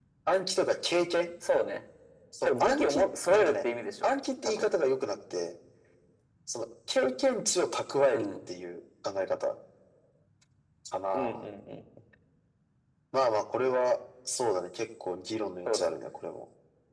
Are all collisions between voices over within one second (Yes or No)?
No